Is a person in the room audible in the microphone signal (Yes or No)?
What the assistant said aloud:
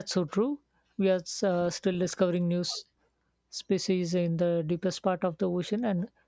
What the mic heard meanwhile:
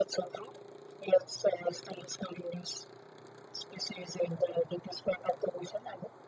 No